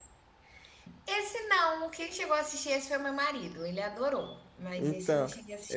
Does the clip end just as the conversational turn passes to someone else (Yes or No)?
Yes